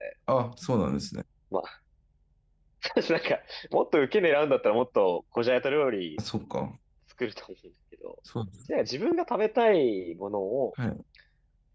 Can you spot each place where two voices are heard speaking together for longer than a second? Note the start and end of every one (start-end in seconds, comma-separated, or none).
none